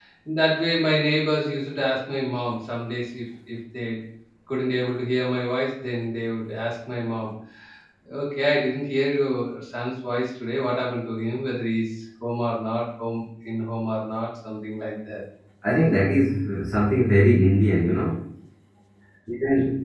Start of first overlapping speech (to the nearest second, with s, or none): none